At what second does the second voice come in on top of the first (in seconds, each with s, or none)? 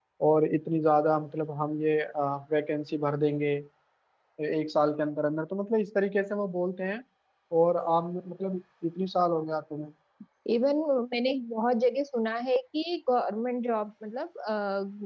none